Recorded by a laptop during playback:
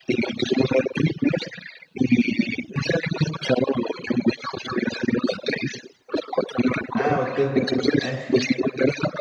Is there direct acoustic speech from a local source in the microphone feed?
Yes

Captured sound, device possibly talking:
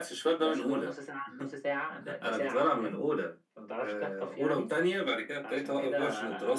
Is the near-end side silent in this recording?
Yes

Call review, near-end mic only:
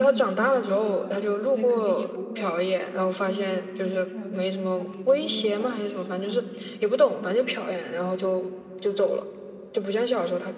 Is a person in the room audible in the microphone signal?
Yes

